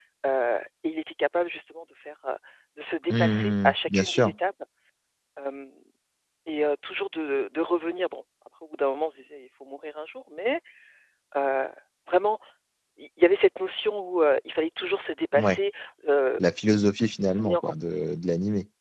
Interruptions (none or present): present